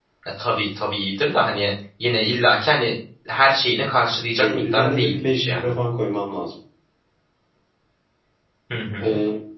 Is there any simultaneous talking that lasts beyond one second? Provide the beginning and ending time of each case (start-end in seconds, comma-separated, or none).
4.4-5.7